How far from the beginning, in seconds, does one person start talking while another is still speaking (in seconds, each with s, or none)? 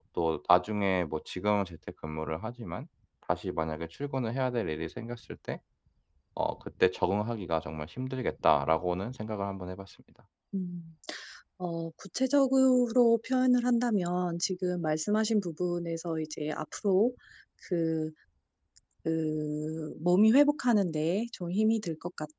none